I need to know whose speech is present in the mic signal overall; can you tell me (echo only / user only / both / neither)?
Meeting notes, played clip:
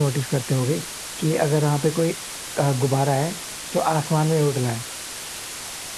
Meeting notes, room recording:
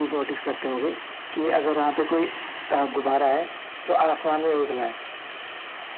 echo only